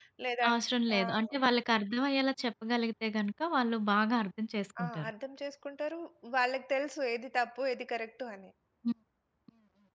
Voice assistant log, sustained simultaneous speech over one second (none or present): none